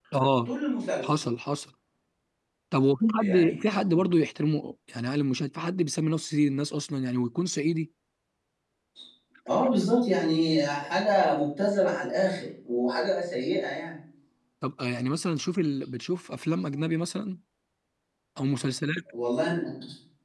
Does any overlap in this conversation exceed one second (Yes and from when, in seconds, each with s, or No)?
No